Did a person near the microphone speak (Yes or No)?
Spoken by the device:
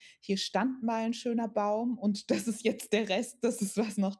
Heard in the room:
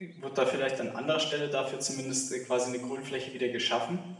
Yes